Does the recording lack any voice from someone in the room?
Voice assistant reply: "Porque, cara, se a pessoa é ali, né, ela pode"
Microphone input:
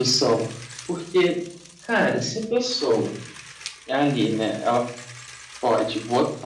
Yes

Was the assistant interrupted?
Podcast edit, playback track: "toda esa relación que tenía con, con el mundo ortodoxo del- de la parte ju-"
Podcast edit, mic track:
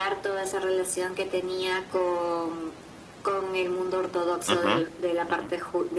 Yes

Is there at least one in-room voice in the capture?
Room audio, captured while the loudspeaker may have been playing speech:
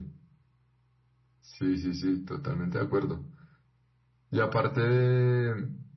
No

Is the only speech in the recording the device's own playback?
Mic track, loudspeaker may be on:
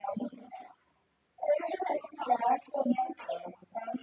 Yes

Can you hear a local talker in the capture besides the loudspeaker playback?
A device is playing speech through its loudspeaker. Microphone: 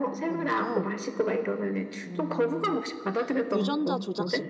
Yes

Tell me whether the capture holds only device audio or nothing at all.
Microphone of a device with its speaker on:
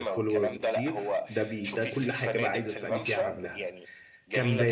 No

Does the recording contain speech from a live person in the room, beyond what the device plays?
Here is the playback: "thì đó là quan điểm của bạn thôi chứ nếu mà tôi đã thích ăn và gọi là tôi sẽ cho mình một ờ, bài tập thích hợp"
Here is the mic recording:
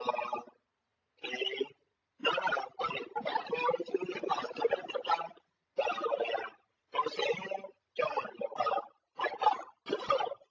No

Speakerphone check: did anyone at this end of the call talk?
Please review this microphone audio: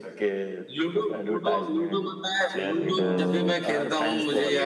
Yes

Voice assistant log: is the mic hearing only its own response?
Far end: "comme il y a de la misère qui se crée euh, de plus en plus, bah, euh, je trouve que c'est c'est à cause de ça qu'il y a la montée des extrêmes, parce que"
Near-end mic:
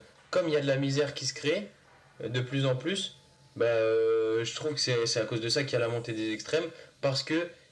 Yes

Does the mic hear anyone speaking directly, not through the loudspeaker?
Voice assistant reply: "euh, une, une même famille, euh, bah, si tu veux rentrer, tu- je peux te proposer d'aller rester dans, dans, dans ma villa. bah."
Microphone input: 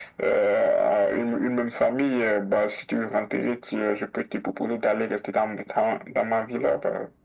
No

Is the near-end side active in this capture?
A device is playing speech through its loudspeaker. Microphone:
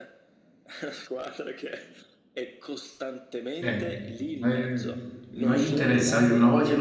Yes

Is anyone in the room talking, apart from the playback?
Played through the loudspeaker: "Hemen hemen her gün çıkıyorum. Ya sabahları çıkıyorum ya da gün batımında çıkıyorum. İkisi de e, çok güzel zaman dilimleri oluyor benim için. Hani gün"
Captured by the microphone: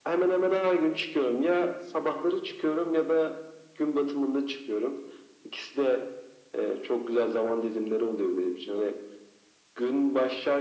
No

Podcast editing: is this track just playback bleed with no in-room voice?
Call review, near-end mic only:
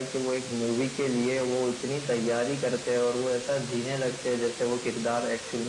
Yes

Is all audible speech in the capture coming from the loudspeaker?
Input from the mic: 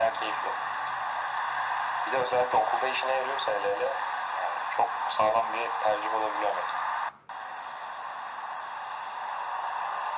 Yes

